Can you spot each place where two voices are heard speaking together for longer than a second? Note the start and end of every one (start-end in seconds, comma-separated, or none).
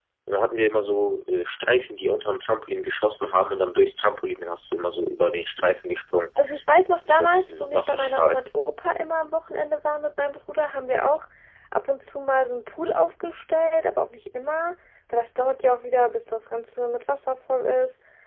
7.1-8.4